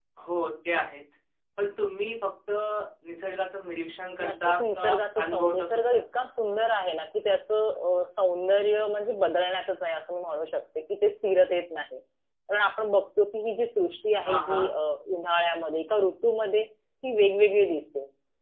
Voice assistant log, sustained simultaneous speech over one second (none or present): present